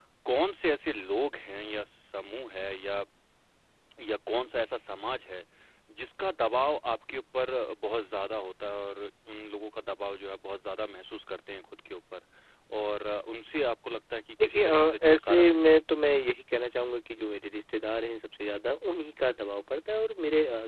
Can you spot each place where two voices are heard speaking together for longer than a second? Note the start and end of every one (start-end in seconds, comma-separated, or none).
14.4-15.8